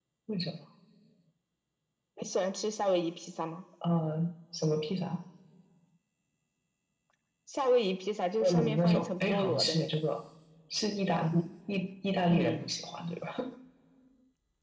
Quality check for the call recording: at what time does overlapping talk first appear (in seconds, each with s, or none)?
8.4 s